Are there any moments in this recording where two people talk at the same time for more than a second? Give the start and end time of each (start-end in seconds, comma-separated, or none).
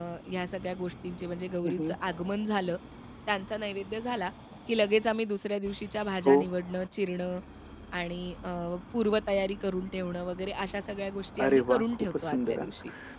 11.4-12.7